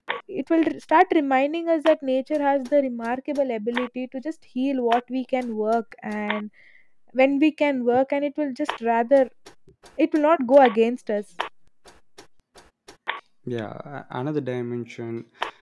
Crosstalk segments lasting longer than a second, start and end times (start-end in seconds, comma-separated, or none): none